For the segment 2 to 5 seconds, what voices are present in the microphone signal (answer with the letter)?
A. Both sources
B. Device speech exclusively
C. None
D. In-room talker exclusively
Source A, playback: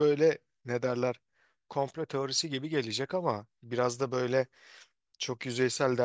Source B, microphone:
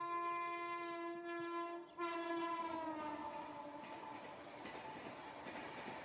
C